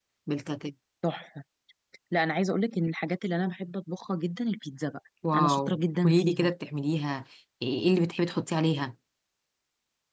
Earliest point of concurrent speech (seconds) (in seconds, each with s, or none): 5.2 s